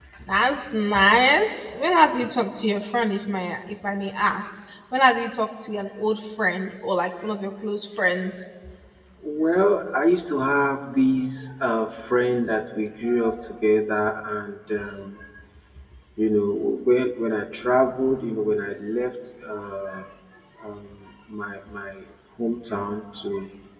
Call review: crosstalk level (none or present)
none